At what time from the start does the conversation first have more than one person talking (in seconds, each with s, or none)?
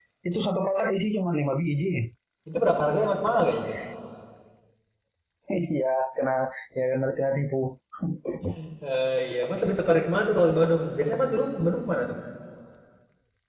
none